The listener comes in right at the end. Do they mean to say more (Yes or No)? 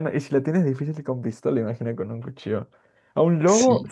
No